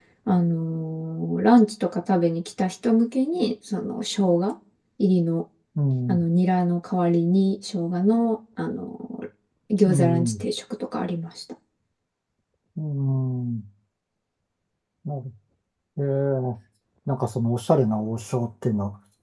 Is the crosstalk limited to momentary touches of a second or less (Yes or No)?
Yes